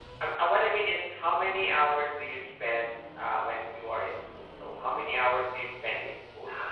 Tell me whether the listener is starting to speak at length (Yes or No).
Yes